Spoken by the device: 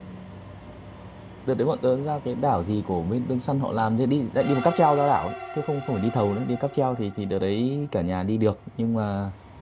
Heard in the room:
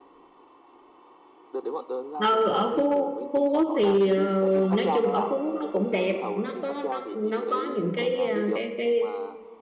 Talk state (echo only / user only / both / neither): both